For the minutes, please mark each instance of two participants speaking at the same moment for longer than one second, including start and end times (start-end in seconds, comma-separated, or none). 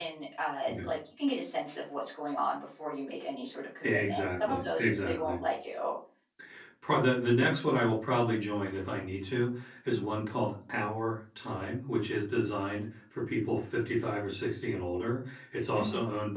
3.8-5.4